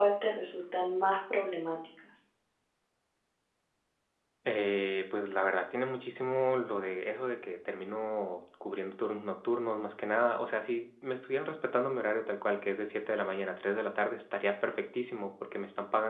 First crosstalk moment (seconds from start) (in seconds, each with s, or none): none